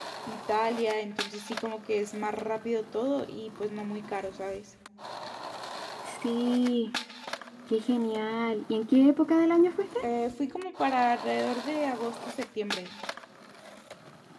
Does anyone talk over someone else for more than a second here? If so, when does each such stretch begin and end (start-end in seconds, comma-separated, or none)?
none